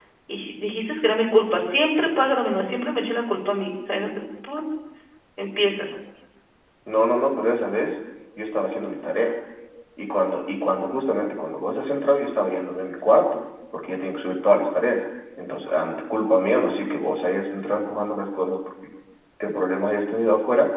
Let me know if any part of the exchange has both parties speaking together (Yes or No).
No